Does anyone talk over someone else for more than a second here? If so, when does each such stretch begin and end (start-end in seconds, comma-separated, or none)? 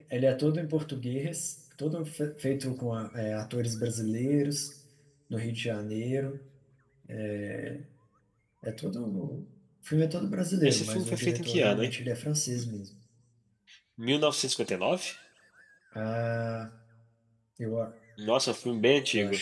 10.6-11.9